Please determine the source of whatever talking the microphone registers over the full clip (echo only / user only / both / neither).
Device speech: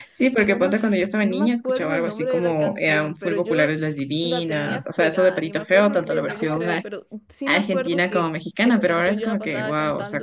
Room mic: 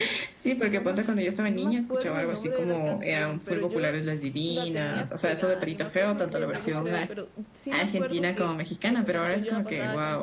echo only